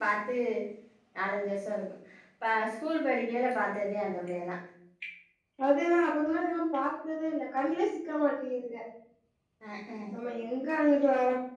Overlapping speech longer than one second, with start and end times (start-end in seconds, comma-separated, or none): none